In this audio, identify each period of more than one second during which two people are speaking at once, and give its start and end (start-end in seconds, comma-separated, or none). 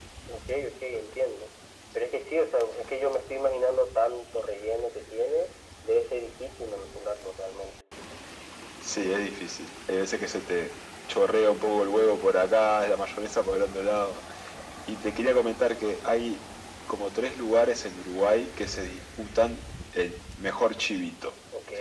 none